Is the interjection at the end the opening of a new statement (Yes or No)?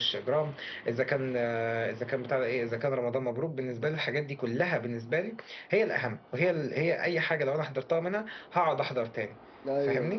Yes